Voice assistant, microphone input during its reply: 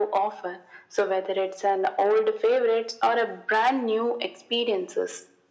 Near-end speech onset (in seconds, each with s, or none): none